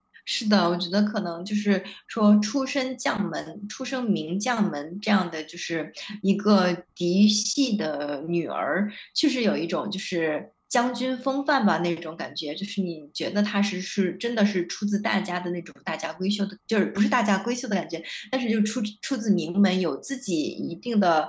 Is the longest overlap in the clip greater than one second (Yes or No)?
No